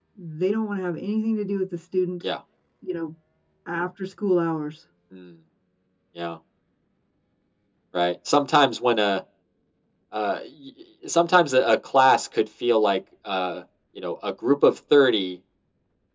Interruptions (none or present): none